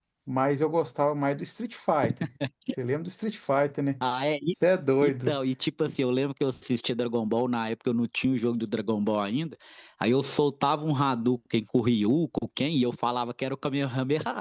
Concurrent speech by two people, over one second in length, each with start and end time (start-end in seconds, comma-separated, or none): none